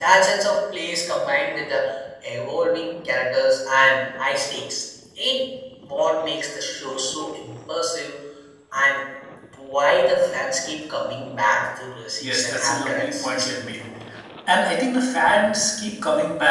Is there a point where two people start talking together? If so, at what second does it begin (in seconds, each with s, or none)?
12.2 s